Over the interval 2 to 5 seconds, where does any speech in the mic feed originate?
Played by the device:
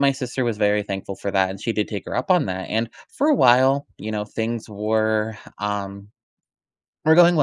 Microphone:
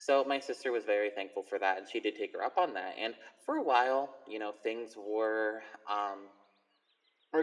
echo only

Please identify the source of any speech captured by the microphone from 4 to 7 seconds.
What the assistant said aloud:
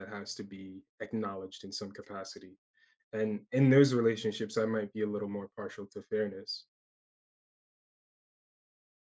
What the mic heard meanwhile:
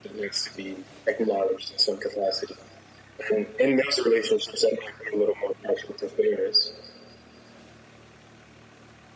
echo only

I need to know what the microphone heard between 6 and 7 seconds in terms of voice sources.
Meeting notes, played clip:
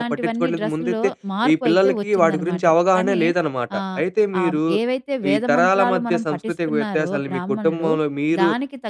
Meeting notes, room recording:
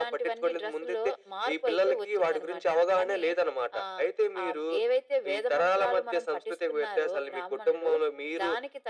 echo only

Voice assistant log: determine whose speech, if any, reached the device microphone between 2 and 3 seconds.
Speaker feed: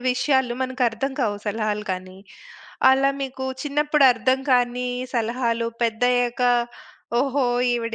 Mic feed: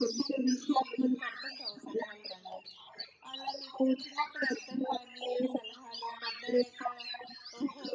echo only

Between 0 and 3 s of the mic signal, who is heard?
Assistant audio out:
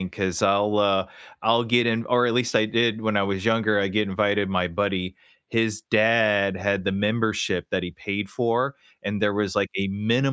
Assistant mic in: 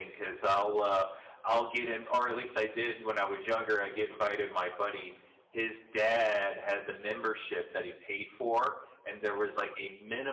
echo only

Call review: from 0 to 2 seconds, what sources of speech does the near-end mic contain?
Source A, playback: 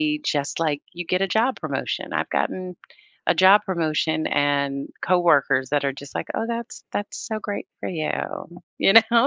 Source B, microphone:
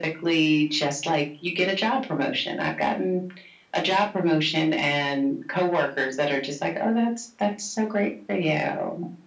echo only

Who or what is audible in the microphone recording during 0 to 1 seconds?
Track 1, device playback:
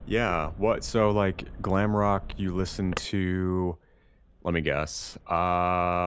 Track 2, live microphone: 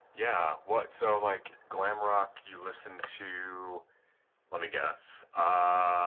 echo only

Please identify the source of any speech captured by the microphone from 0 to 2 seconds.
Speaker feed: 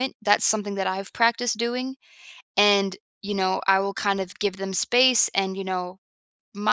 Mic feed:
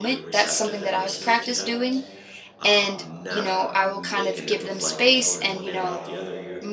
both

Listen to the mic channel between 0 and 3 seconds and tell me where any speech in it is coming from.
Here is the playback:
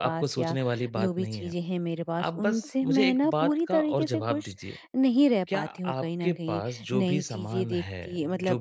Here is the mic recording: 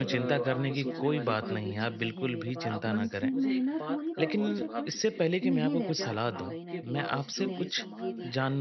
both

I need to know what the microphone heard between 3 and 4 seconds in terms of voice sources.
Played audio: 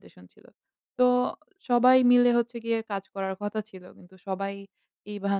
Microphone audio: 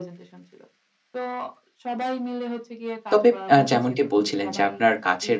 both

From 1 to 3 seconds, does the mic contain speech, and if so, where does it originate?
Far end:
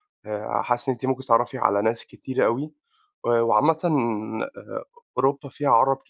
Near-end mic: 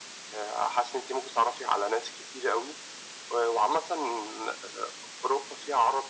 echo only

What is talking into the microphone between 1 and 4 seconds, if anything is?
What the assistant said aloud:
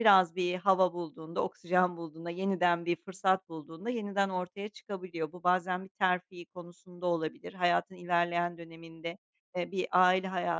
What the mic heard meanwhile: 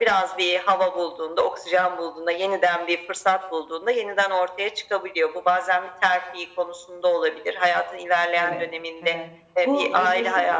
echo only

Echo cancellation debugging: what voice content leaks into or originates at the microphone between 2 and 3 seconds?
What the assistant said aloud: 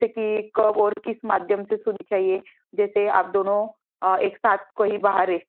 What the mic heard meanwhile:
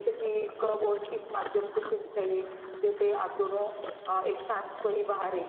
echo only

